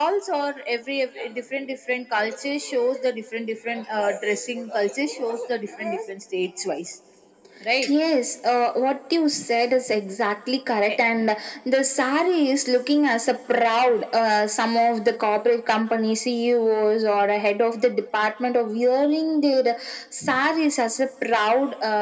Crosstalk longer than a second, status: none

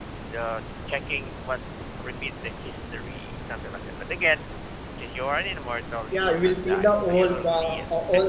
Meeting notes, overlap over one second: present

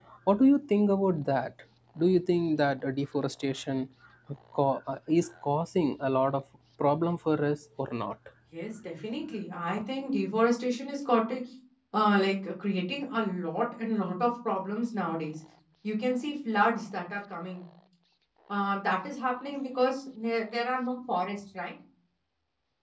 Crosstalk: none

